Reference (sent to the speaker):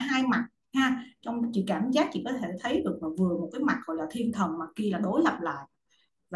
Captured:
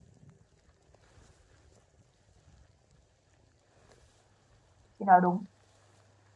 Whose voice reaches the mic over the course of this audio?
user only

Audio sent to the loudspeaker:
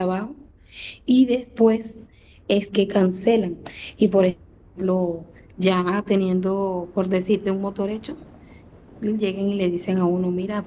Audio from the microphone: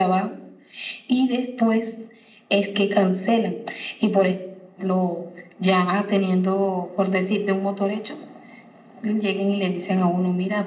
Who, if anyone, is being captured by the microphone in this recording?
echo only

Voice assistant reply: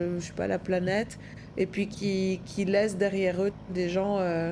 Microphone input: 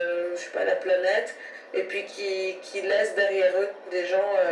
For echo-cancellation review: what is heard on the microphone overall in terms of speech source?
echo only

